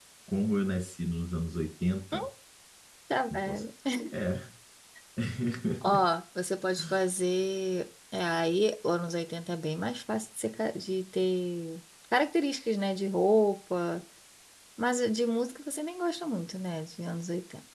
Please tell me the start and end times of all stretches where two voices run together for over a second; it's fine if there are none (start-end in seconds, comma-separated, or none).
none